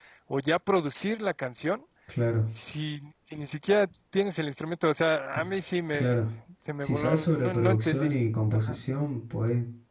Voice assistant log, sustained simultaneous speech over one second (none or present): present